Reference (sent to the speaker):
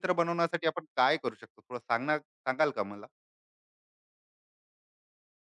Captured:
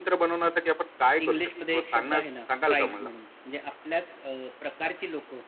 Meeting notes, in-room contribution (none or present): present